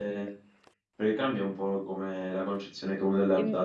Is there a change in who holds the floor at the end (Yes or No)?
No